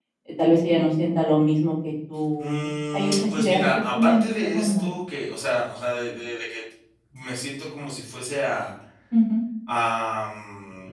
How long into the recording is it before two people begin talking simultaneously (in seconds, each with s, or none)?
2.4 s